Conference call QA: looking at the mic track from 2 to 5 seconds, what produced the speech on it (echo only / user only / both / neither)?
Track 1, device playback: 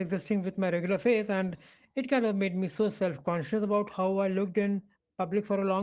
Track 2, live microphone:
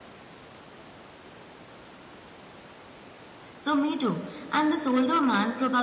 user only